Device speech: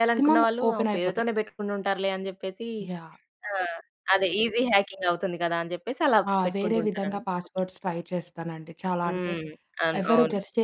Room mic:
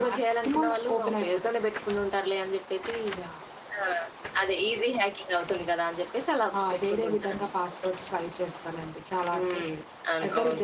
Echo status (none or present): present